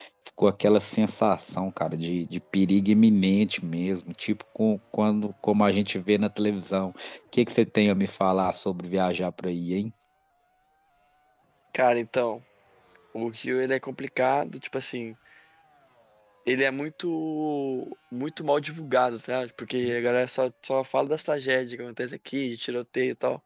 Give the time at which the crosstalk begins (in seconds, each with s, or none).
none